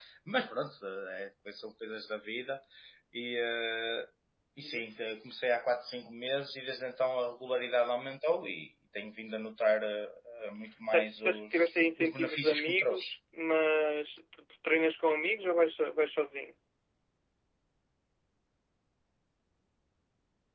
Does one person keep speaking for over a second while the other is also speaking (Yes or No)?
Yes